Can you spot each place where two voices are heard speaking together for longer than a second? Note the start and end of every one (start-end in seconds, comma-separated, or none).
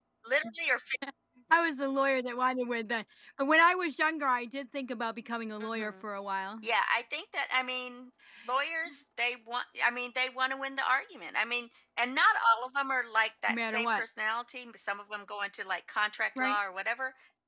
none